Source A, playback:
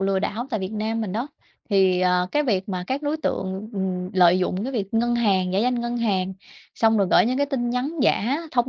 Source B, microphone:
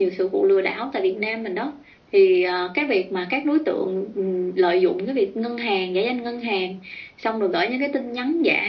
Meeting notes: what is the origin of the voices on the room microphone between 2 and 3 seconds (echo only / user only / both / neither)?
echo only